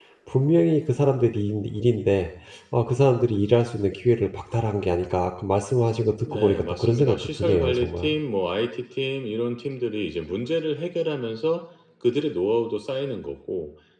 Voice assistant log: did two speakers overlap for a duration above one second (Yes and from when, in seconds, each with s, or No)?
Yes, from 6.2 s